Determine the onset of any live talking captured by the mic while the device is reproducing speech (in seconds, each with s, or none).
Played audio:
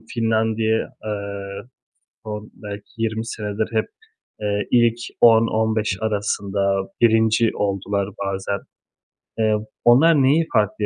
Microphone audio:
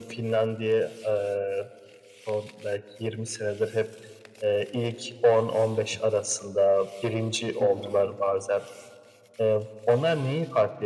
7.6 s